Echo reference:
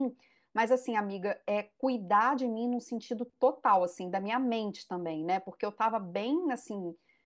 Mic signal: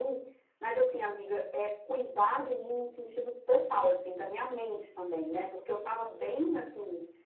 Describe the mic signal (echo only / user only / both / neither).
echo only